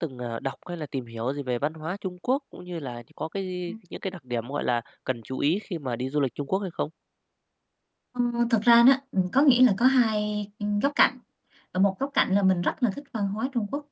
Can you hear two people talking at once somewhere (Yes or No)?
No